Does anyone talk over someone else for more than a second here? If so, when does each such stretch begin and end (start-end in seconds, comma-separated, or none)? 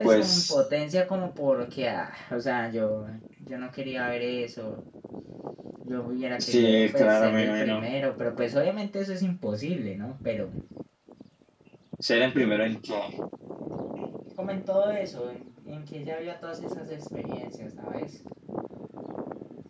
6.4-7.8